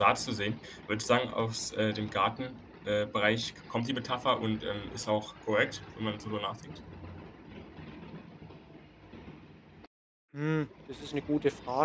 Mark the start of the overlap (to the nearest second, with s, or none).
none